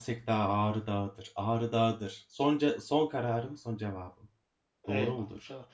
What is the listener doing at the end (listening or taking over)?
taking over